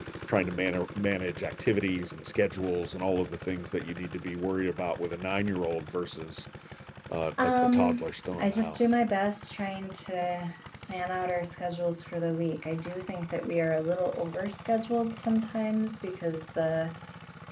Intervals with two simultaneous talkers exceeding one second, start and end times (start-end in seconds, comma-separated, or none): 7.4-8.8